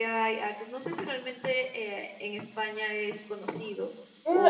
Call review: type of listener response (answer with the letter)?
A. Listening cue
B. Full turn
B